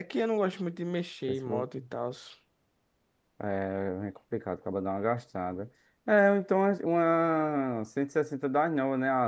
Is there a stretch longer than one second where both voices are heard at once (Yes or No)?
No